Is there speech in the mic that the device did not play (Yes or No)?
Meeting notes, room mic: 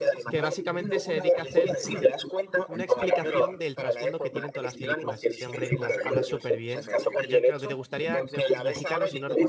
Yes